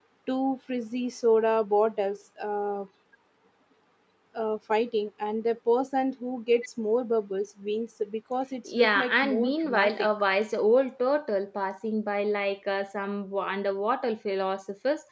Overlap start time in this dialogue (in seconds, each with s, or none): 8.7 s